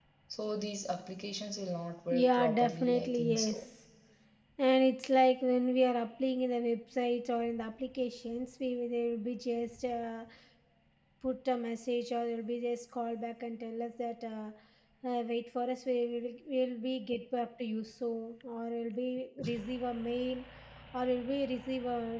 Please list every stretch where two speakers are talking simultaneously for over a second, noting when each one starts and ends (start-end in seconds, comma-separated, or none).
2.1-3.6